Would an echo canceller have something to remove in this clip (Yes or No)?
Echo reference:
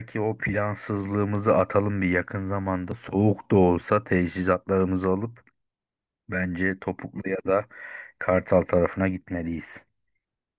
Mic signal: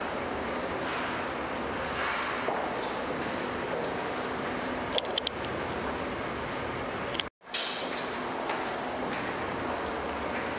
No